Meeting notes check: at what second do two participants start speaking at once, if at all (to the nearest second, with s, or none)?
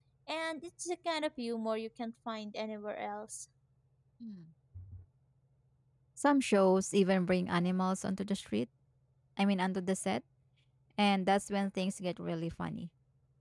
none